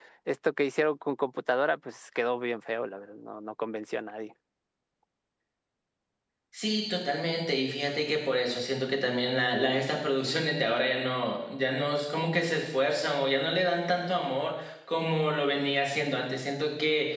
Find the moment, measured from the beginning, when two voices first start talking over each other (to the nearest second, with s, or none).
none